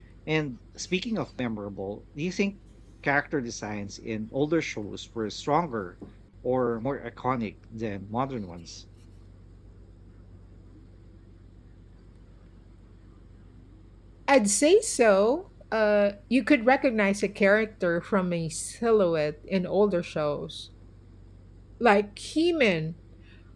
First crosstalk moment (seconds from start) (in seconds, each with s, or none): none